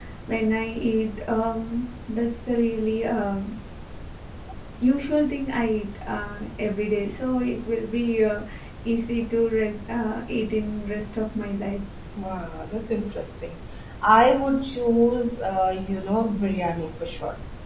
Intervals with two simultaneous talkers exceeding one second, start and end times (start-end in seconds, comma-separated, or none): none